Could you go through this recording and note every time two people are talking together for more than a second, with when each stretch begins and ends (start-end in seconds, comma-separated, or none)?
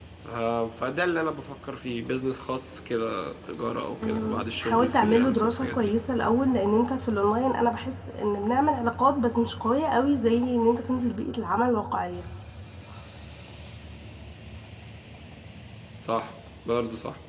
4.0-5.9